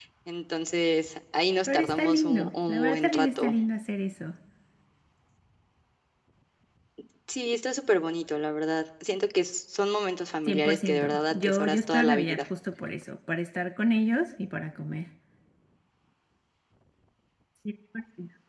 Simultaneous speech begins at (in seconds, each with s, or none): 1.7 s